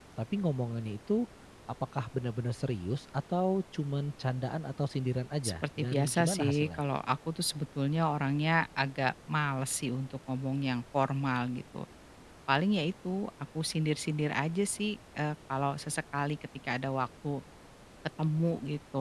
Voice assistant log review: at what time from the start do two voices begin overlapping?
5.4 s

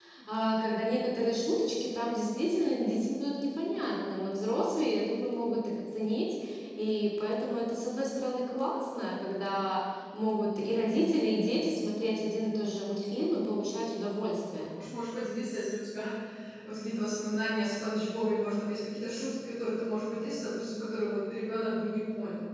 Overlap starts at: none

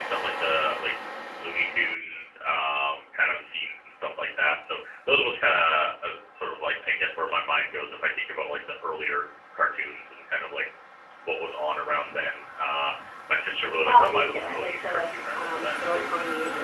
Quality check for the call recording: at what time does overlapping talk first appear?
13.9 s

